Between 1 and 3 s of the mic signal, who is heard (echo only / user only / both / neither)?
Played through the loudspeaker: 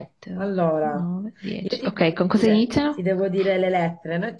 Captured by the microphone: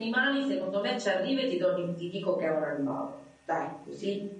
user only